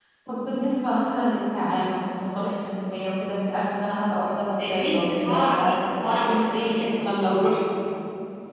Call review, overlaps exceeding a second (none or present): present